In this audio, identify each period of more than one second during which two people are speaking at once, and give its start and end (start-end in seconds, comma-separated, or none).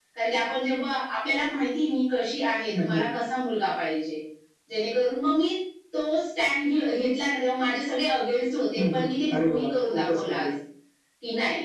8.8-10.5